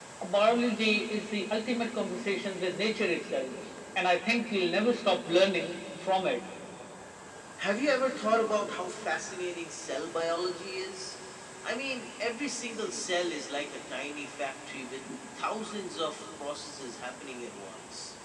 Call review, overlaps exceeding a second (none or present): none